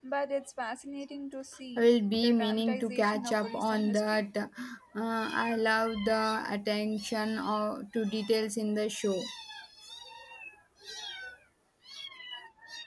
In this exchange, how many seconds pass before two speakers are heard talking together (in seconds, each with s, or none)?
1.8 s